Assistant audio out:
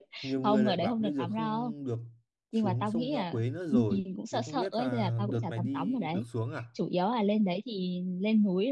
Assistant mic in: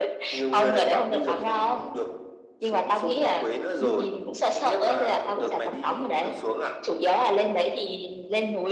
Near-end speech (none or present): none